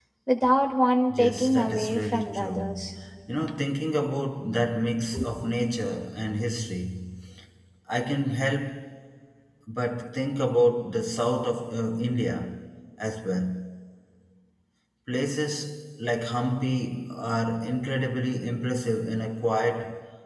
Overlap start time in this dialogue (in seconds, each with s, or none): 1.1 s